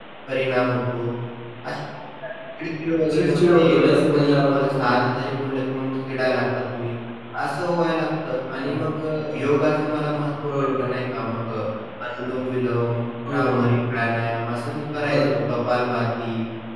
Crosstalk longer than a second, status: present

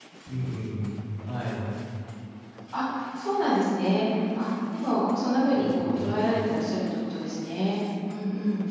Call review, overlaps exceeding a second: none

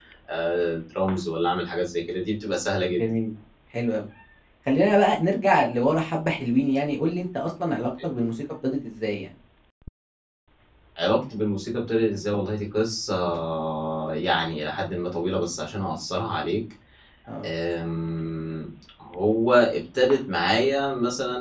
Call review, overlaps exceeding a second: none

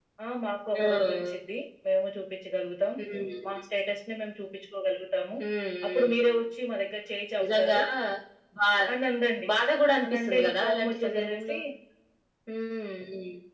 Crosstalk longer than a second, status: present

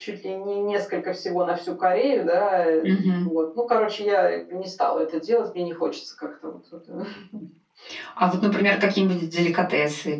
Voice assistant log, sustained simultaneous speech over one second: none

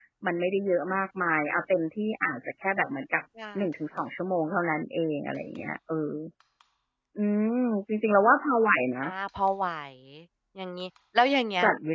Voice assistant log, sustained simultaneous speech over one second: none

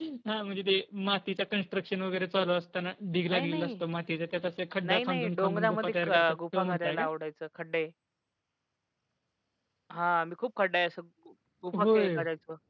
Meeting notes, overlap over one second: present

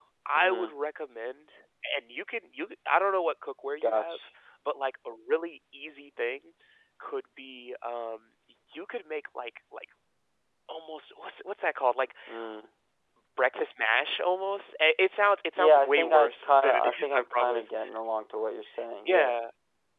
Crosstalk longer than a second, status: present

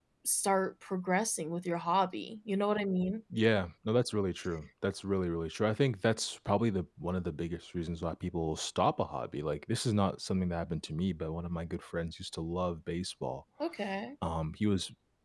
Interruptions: none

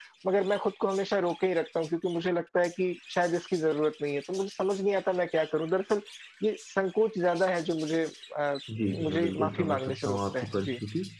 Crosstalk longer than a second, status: present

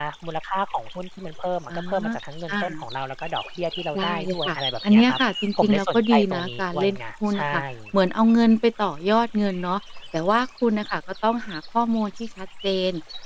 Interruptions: present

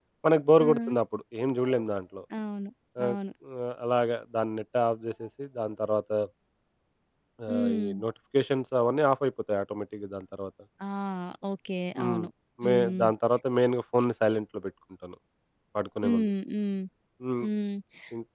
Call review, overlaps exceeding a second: none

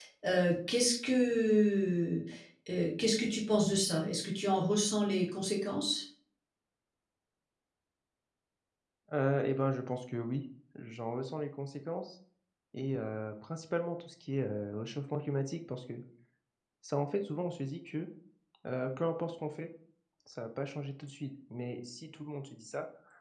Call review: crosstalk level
none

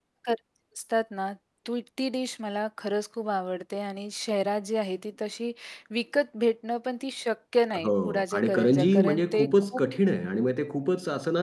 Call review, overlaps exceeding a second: present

